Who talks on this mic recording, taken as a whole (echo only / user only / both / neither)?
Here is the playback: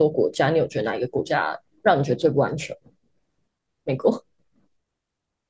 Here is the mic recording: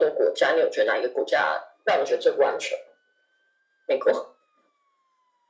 echo only